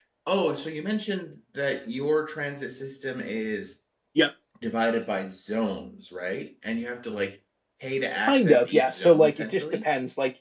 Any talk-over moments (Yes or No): Yes